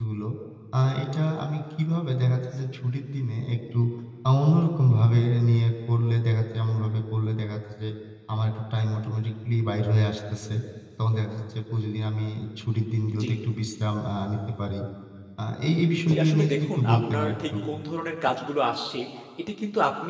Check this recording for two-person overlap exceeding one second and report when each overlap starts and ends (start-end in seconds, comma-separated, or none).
16.1-17.5